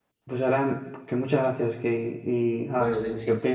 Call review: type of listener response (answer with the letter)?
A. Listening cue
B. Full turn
B